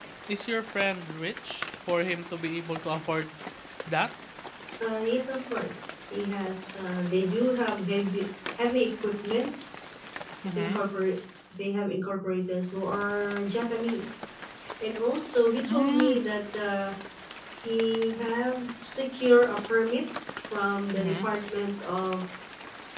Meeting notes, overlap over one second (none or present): none